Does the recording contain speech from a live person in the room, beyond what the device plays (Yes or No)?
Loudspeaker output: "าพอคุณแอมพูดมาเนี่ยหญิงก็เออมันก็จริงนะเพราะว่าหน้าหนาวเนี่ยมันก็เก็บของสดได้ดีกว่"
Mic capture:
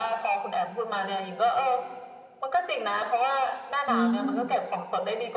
Yes